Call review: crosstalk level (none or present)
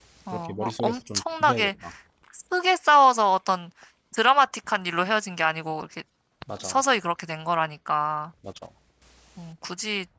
present